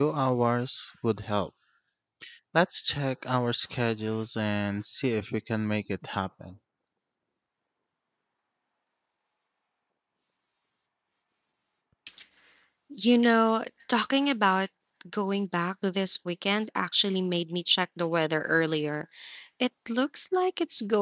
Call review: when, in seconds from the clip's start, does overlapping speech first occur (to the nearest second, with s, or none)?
none